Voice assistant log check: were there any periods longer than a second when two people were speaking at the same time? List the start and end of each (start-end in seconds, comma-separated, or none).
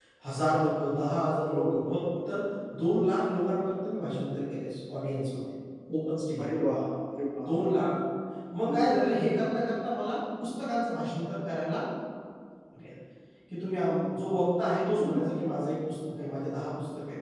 none